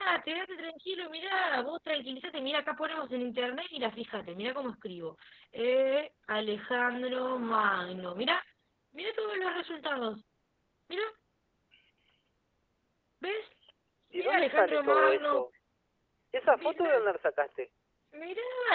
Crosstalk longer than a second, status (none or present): present